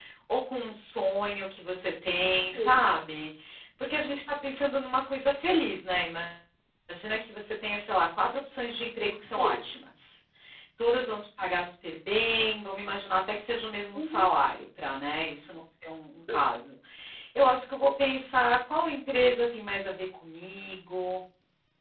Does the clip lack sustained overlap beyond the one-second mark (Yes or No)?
Yes